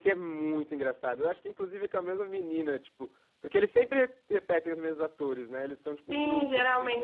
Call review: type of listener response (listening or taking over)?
taking over